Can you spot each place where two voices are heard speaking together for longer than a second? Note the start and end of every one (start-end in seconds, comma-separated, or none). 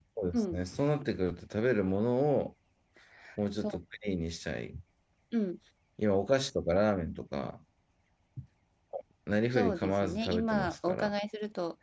9.5-11.1